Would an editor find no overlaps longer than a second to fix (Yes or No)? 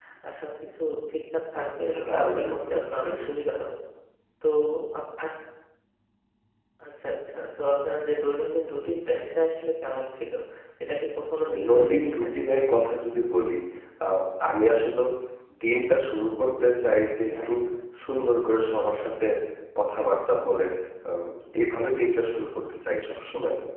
No